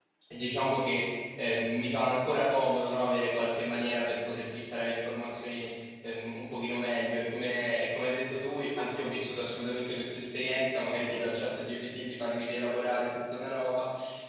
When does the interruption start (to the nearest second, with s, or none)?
none